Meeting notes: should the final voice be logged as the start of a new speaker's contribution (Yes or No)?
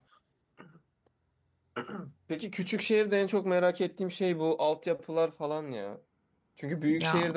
No